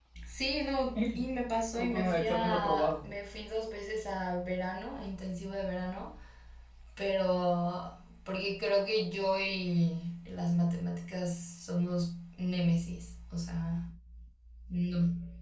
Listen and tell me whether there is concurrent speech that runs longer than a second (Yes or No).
Yes